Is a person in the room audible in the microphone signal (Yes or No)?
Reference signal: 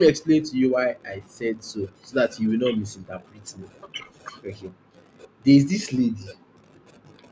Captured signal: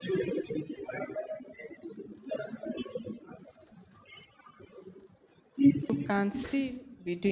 Yes